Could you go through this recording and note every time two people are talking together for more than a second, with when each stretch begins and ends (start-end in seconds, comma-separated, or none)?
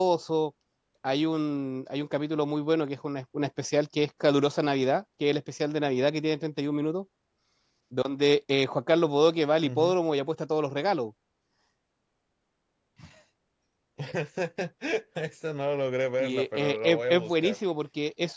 16.2-17.6